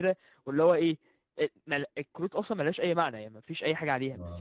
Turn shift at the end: No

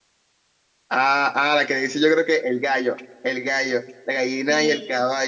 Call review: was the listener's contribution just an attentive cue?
Yes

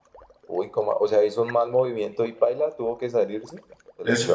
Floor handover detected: Yes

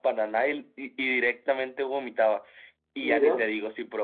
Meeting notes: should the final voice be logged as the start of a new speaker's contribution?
No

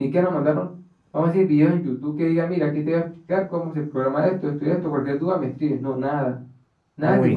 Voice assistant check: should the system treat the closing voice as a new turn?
No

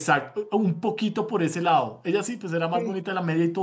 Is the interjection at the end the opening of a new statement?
No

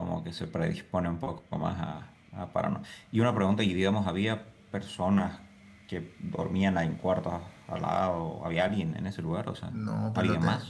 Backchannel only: No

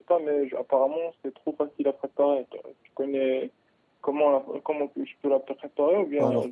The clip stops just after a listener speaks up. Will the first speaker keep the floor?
No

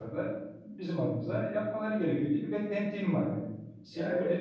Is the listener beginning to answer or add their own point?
No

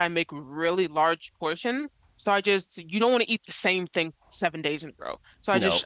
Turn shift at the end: No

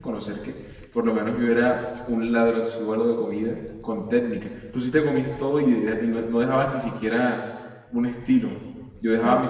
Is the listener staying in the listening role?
No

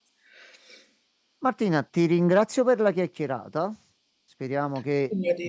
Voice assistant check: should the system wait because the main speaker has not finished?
Yes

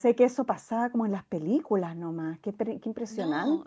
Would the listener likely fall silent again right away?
No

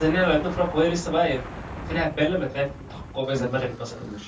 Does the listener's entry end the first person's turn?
Yes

